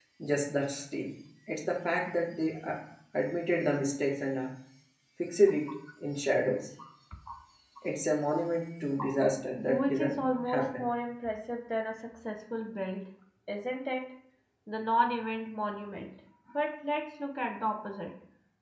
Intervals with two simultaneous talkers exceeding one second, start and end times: 9.7-10.9

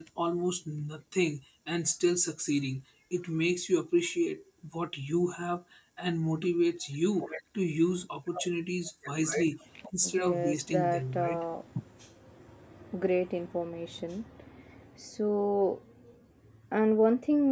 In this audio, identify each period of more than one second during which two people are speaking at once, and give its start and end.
10.1-11.4

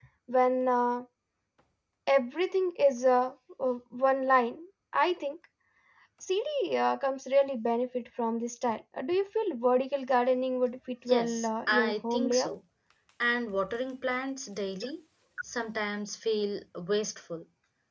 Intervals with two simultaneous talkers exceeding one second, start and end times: 11.1-12.6

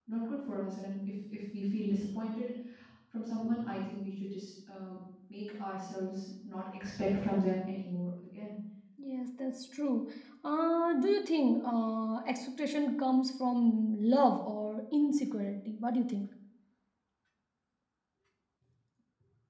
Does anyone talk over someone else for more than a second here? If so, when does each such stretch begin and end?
none

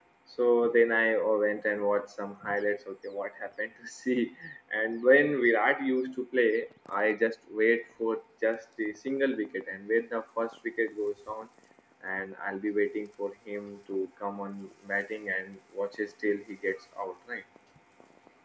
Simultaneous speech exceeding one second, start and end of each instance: none

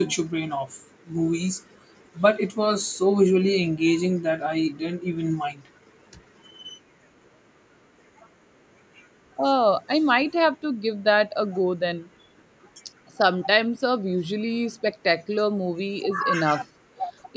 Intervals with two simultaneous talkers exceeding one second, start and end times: none

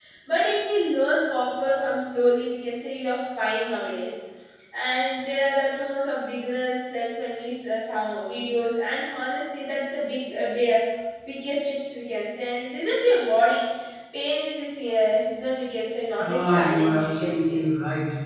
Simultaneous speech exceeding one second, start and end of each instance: 16.2-17.6

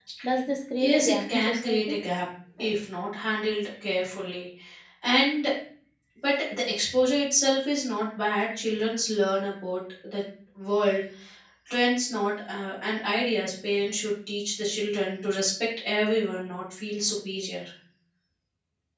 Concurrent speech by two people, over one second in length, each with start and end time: 0.8-2.0

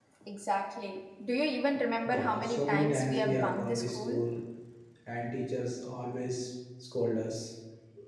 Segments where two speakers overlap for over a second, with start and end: 2.0-4.2

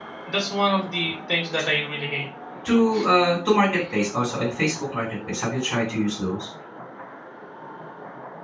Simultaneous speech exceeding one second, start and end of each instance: none

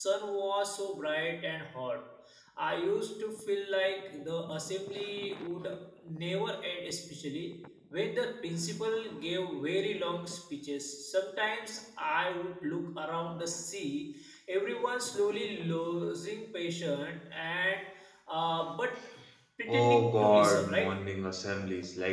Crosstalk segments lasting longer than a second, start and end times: 19.7-20.9

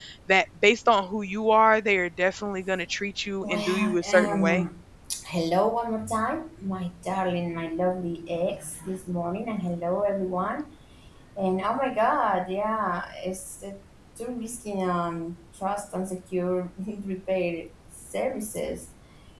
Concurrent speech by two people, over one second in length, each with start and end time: 3.4-4.7

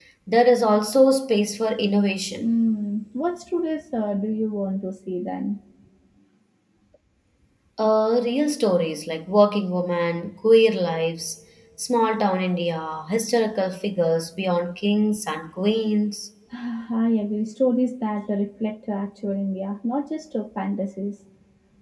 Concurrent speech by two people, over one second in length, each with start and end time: none

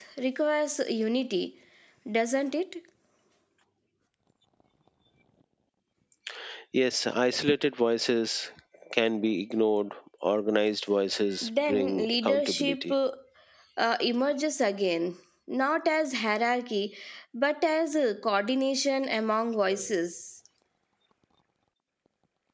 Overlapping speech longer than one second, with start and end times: 11.4-12.9

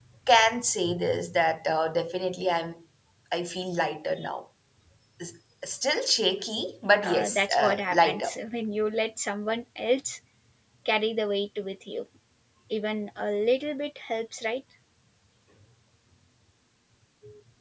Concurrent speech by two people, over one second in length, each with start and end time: 7.0-8.3

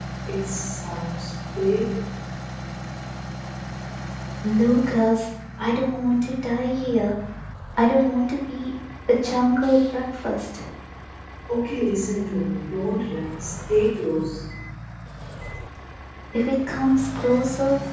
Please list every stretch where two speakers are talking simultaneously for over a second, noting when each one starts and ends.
none

